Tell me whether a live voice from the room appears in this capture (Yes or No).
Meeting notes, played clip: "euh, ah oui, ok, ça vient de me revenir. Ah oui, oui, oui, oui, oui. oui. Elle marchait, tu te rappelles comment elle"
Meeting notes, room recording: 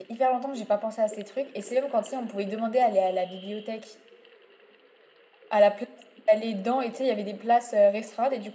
Yes